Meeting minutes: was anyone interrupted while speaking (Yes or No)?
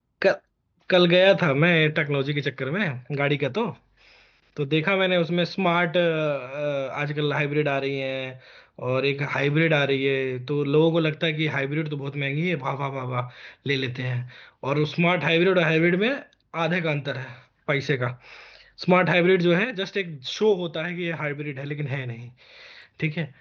No